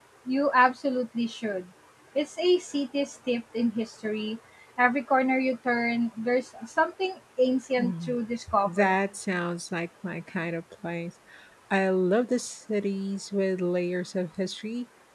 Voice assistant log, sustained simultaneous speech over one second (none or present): none